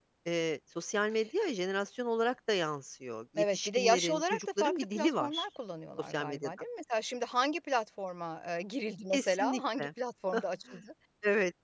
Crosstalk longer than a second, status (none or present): present